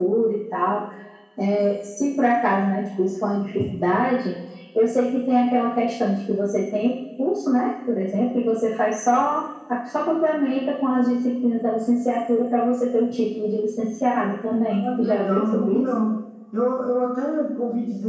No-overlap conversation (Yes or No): No